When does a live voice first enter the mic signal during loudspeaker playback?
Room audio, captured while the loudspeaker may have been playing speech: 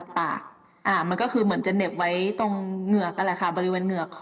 none

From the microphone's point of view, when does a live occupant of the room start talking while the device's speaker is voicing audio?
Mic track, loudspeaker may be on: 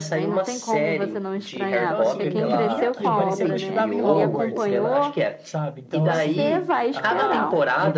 1.8 s

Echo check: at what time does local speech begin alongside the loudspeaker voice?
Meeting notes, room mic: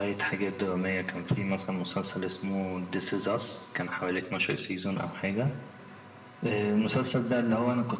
none

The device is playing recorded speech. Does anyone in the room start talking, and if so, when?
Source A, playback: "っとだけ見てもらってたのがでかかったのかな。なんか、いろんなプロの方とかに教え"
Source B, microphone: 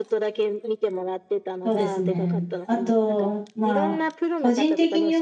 1.6 s

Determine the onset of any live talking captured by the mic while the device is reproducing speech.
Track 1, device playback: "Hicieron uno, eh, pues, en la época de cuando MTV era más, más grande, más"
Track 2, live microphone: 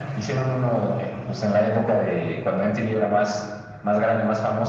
none

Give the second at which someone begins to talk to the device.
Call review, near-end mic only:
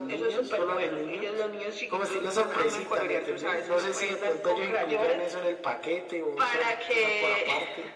none

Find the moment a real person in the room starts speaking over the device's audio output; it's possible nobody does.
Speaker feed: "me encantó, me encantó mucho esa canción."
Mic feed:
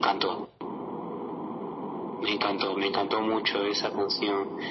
none

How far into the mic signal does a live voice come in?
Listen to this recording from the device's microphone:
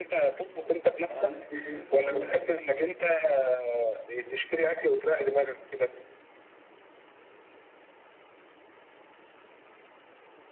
1.0 s

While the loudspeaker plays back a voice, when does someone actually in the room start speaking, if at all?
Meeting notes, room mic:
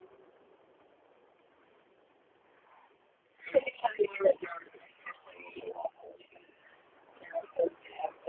none

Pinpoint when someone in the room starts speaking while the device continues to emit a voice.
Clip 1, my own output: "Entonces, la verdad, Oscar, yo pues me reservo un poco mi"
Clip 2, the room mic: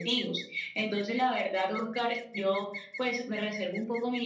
none

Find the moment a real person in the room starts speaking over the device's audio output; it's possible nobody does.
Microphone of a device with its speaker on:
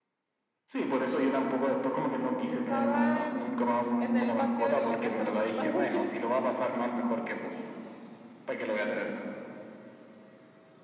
2.5 s

